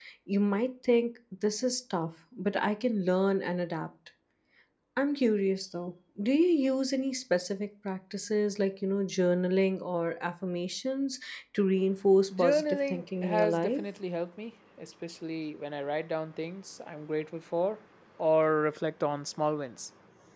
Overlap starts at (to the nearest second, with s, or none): 12 s